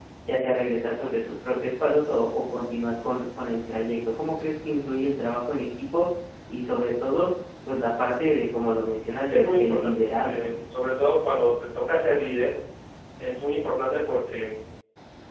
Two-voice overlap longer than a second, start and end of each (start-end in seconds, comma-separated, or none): 9.3-10.5